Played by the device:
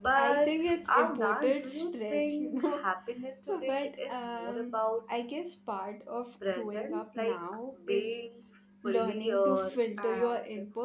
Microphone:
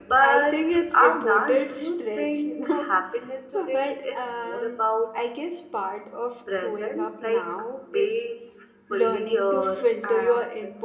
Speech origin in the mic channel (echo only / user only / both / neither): echo only